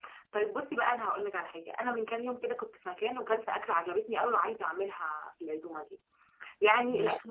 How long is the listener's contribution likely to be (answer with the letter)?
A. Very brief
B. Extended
A